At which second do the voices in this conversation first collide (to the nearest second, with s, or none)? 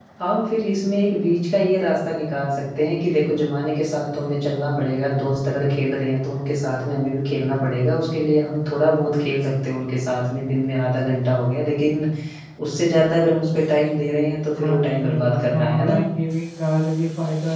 15 s